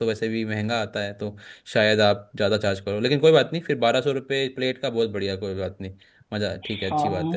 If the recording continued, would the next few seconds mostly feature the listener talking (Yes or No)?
Yes